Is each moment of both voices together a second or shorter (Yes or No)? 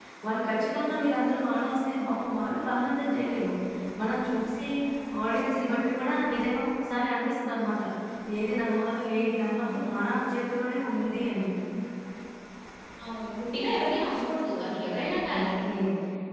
Yes